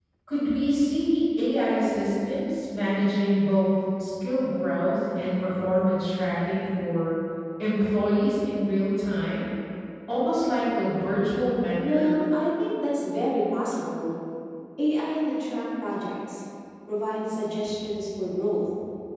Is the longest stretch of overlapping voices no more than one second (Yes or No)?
Yes